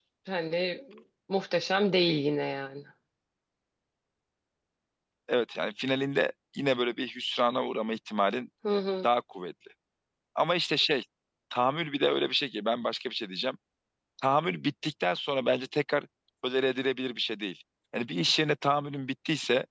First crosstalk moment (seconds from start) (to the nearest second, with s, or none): none